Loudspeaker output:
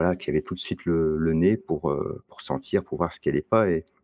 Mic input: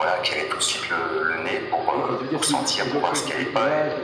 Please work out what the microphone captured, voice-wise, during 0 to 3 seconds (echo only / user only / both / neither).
both